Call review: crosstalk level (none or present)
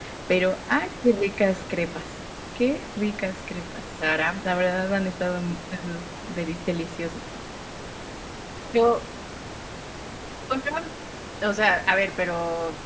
none